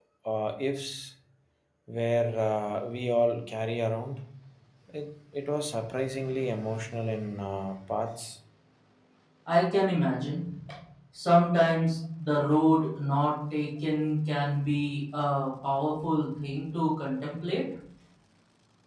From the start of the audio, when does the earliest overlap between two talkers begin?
none

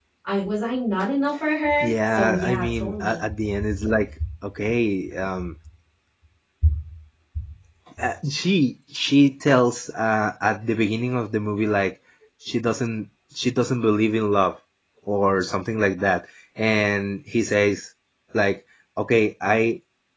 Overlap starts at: 1.8 s

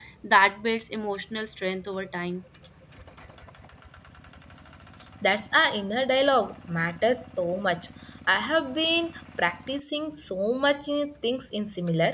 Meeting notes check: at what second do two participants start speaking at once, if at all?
none

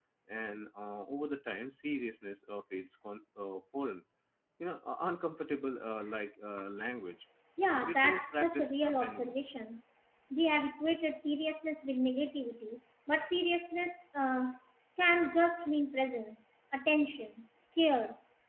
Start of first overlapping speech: 7.8 s

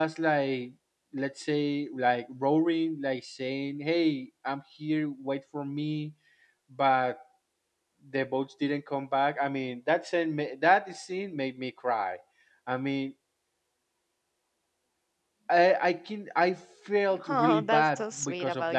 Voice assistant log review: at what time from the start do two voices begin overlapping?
17.1 s

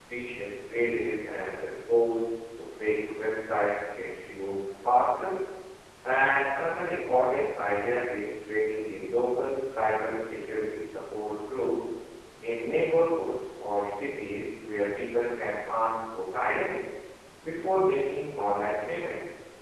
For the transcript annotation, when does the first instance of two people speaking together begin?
none

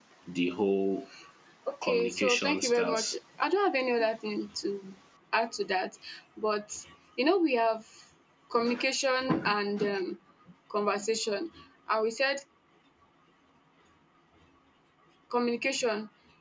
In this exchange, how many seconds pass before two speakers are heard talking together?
1.8 s

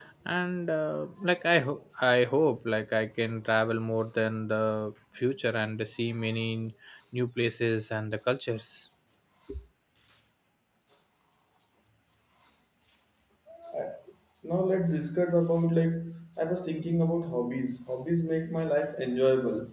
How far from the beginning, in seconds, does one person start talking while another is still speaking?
none

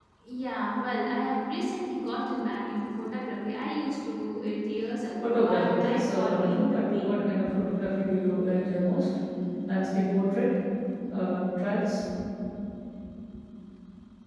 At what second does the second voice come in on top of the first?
5.2 s

